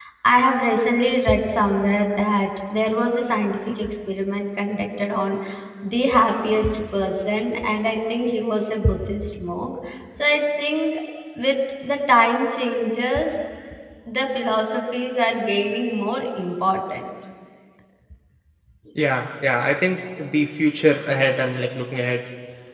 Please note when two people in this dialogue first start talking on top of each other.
none

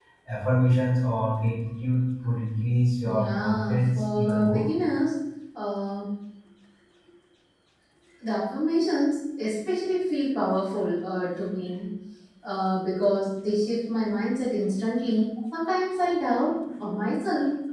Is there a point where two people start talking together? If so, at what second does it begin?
3.0 s

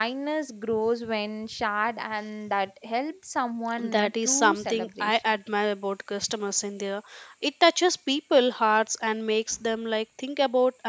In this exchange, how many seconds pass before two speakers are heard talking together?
3.8 s

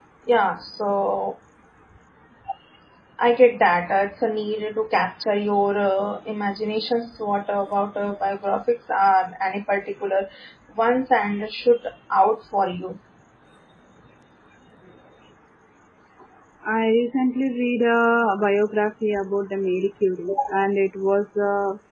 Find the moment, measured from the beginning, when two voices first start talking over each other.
none

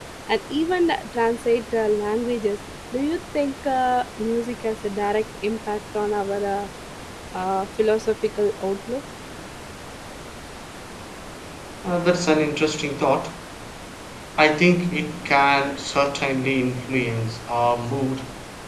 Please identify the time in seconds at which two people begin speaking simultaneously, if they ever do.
none

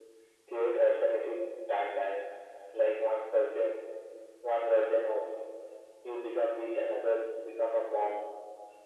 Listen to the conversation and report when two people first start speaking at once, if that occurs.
none

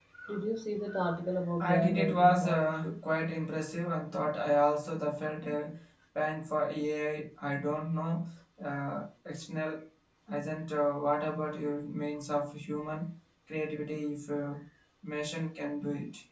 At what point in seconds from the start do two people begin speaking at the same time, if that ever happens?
1.6 s

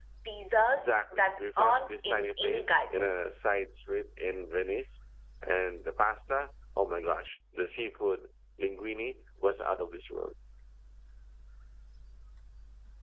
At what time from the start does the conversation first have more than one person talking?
0.8 s

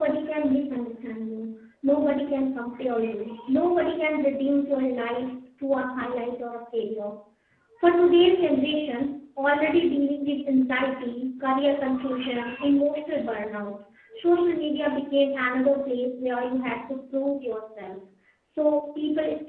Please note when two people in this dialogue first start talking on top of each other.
none

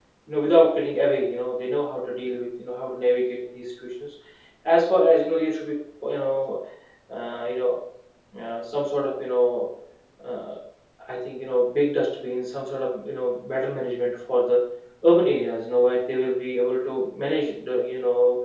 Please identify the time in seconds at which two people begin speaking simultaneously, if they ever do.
none

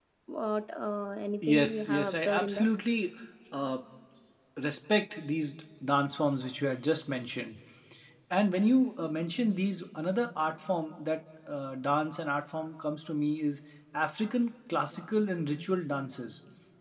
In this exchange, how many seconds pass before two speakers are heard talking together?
1.4 s

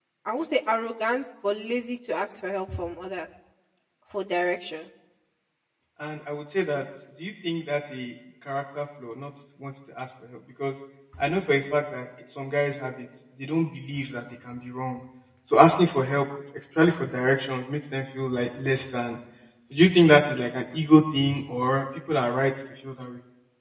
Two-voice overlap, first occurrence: none

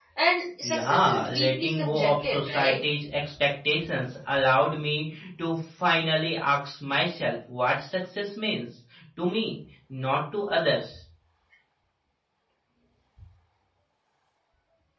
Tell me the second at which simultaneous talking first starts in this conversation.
0.6 s

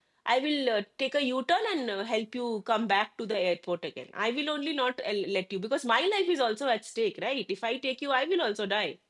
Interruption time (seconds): none

